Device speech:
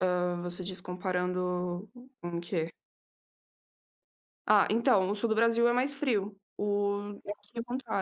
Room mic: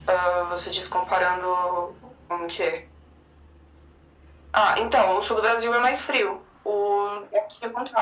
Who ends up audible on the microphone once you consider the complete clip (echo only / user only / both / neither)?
echo only